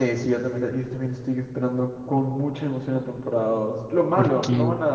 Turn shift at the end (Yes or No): No